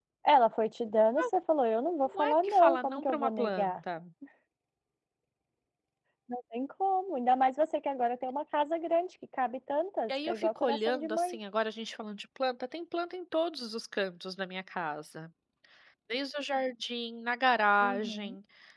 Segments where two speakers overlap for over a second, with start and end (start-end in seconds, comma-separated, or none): 2.0-3.8, 10.1-11.4